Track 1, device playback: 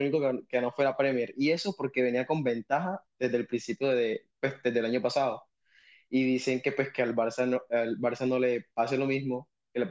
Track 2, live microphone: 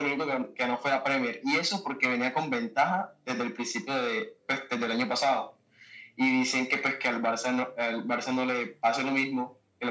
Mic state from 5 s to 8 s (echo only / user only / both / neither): echo only